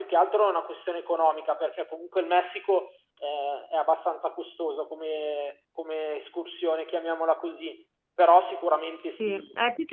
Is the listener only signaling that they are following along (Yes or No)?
No